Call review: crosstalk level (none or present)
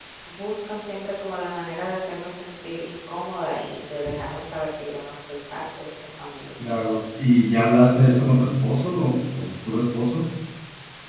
none